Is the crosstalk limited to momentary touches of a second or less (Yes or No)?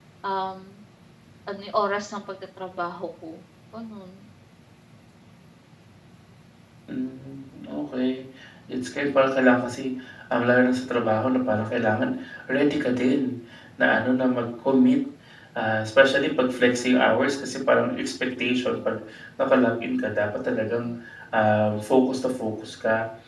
Yes